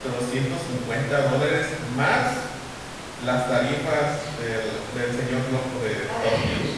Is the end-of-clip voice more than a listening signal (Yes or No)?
Yes